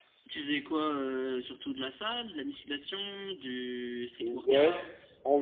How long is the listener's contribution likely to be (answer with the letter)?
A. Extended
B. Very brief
A